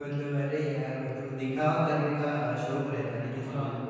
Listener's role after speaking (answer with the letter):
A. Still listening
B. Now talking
A